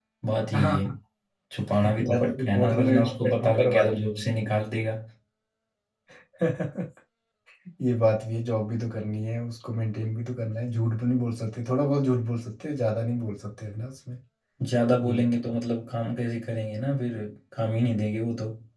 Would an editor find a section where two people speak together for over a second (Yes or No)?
Yes